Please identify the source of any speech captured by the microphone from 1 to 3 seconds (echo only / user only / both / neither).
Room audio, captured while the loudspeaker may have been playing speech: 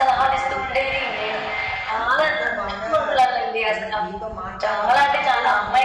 both